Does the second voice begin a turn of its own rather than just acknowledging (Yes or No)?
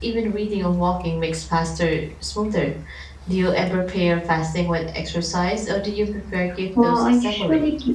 Yes